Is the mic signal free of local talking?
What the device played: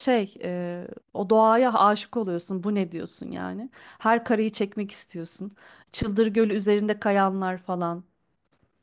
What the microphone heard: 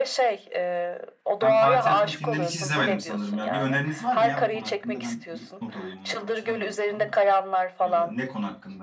No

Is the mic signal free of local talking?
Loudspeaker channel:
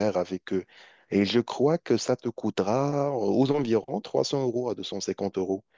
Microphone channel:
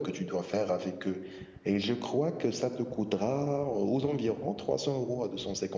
Yes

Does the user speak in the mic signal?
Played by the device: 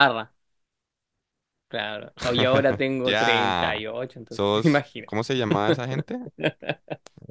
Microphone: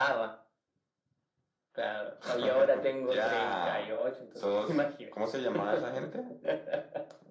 No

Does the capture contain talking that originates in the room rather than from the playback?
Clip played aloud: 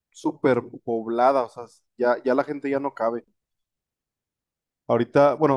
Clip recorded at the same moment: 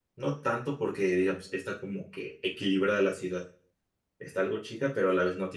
Yes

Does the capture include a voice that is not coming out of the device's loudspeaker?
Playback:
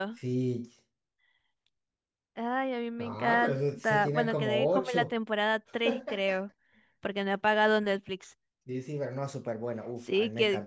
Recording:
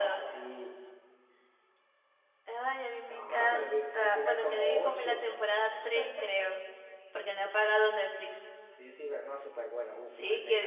No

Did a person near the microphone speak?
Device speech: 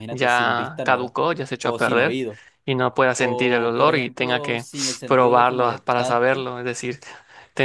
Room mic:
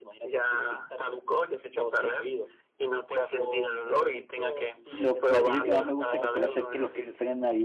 Yes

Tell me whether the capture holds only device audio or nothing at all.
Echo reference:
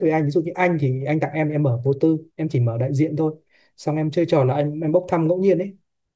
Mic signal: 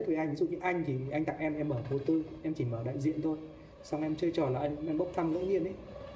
Yes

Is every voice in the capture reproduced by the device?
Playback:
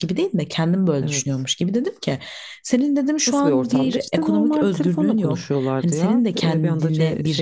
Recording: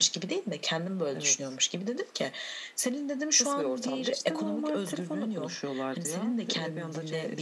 Yes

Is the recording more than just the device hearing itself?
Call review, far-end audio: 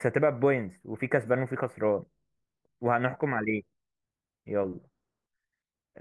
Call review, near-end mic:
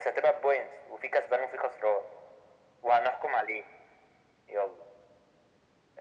No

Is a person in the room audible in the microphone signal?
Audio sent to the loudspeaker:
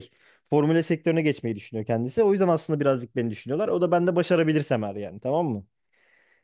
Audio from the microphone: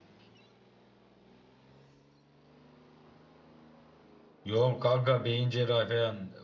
Yes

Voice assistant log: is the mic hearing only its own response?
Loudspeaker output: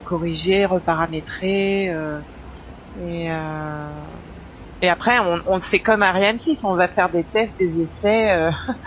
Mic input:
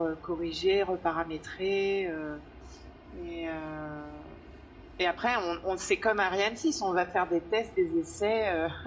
Yes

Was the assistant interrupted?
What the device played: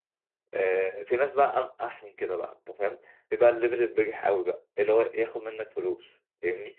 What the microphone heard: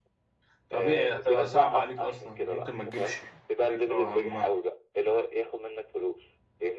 Yes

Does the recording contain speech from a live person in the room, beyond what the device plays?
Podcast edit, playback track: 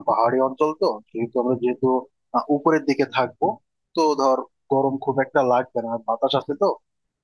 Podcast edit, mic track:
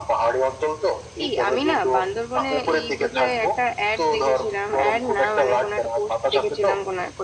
Yes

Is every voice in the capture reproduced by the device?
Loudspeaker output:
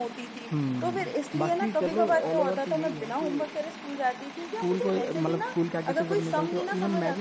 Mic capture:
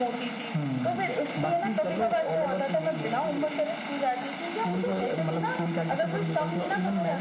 Yes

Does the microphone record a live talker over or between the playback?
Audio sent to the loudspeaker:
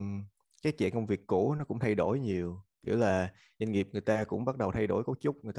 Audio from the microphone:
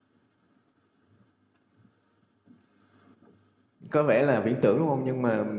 Yes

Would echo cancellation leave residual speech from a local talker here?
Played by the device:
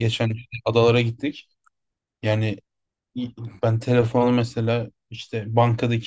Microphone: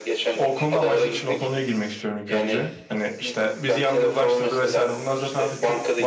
Yes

